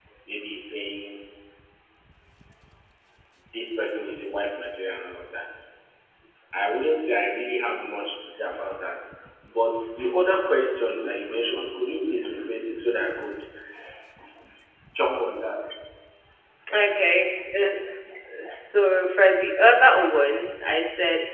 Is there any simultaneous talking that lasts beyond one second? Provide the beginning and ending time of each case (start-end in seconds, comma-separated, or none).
none